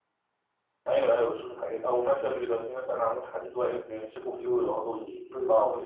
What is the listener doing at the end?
taking over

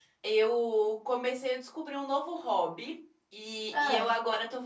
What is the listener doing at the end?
listening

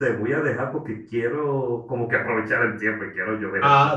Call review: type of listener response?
taking over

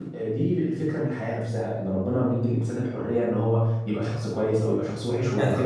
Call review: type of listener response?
taking over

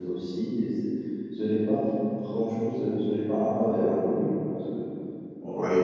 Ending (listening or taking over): listening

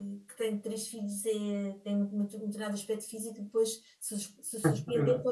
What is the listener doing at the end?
listening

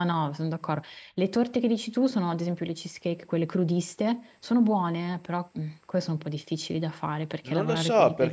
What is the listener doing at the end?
taking over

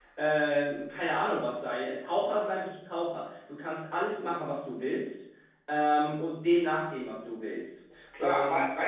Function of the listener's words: taking over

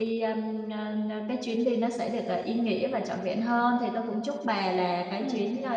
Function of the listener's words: listening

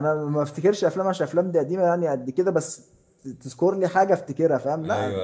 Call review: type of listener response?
taking over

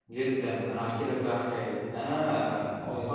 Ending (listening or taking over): listening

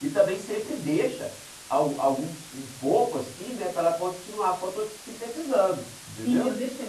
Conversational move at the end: taking over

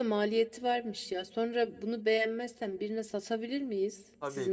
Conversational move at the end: taking over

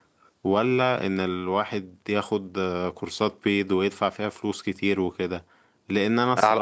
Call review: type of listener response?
listening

